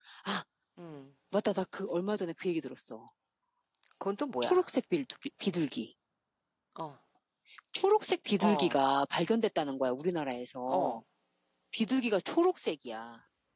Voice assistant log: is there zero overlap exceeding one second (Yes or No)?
Yes